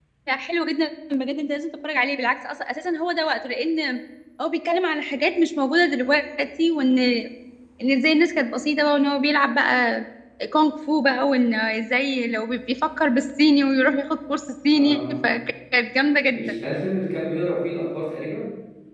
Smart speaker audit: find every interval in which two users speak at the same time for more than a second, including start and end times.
none

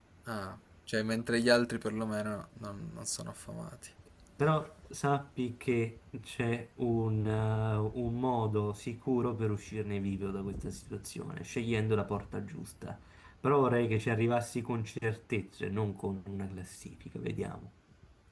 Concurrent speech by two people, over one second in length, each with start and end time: none

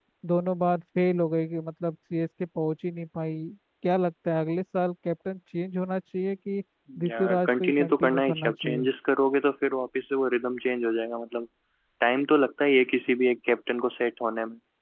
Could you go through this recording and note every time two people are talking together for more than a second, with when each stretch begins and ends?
7.1-8.8

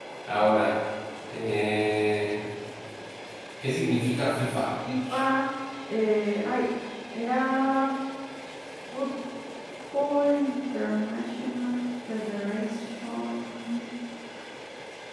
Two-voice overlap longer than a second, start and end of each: none

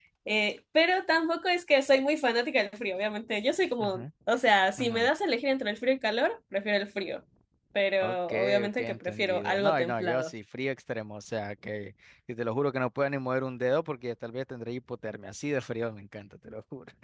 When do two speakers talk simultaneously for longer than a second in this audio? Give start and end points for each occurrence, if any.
8.0-10.3

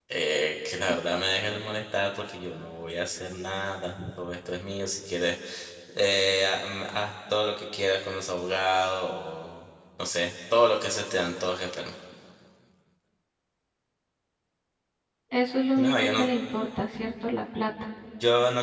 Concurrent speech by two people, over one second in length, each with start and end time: none

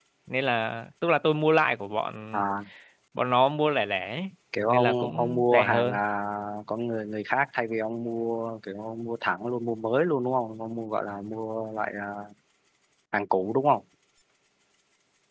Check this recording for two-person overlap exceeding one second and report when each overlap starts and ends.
4.7-6.0

